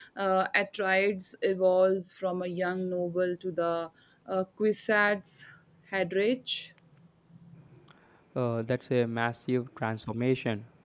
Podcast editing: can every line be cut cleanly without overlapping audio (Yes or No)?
Yes